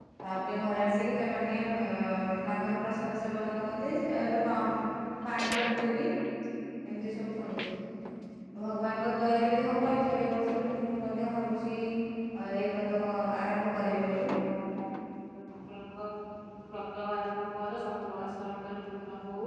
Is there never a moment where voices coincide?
Yes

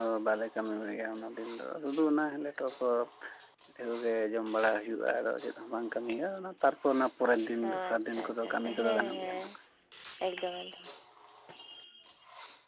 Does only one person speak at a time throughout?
No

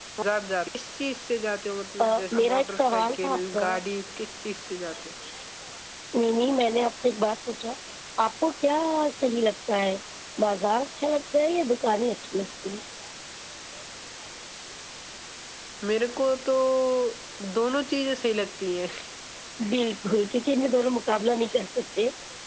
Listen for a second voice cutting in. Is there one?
Yes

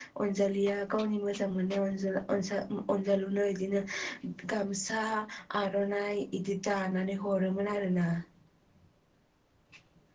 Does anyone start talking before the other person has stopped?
No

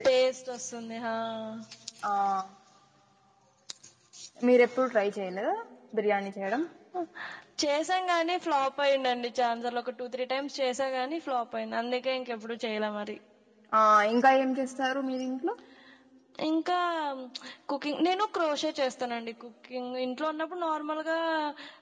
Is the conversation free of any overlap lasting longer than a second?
Yes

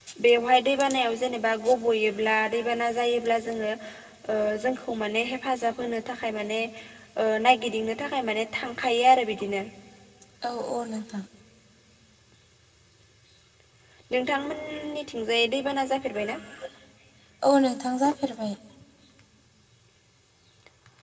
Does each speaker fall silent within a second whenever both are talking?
Yes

